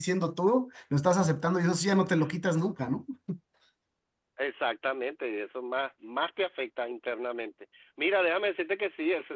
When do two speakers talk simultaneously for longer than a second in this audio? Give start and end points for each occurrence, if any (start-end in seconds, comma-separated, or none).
none